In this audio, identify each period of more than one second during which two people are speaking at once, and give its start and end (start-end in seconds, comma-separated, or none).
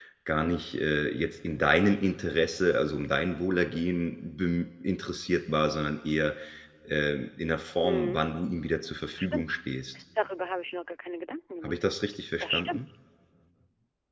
none